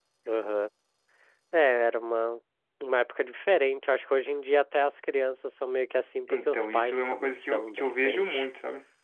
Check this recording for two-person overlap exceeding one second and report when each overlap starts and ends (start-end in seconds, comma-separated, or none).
6.3-8.5